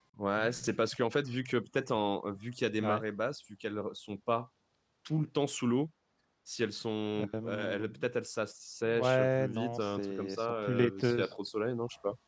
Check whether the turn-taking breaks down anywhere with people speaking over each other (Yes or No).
Yes